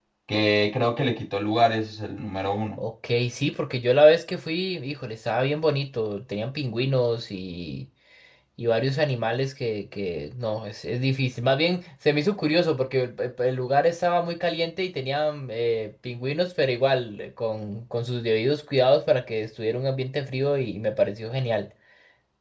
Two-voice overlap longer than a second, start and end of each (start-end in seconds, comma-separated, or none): none